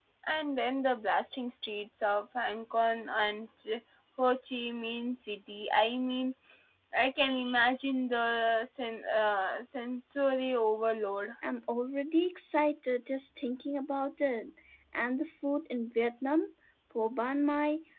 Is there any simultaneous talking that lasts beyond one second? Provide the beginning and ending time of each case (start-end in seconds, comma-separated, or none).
none